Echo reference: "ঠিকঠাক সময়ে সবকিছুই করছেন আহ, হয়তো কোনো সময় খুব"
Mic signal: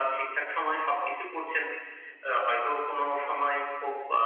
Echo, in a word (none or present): present